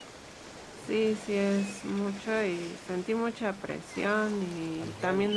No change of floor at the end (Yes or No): Yes